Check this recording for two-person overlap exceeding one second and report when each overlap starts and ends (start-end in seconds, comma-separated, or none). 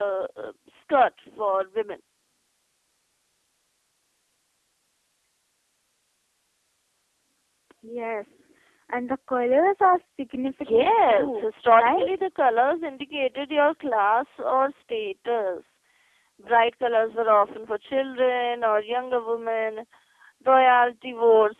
10.7-12.1